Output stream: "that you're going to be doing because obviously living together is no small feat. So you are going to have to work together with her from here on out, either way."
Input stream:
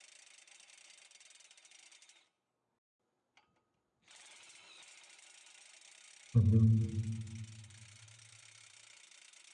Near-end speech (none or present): present